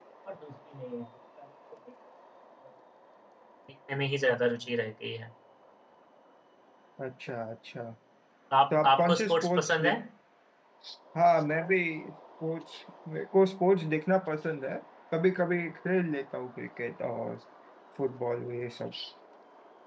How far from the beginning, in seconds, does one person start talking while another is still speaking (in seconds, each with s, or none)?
8.7 s